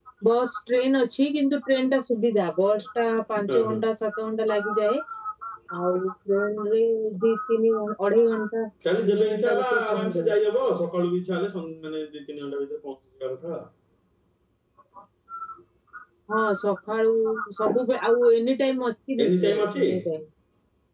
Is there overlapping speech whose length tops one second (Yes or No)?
Yes